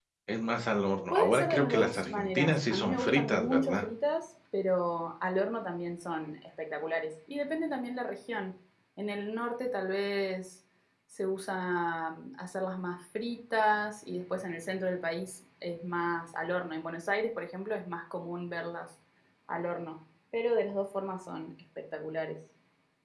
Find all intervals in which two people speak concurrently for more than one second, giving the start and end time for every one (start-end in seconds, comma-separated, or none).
1.1-3.9